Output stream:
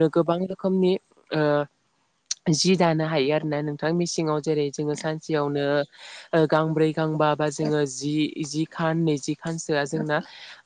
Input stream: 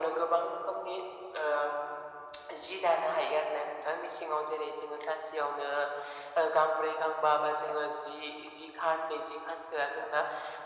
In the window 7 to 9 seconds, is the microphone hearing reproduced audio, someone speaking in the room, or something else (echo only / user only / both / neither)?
echo only